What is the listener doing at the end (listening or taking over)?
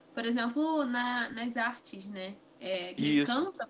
listening